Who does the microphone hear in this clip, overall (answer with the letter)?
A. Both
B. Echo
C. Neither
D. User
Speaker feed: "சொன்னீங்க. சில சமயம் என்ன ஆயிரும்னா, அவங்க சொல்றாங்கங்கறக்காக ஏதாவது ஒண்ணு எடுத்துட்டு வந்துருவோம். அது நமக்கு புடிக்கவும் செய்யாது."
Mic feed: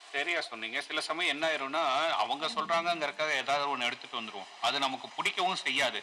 A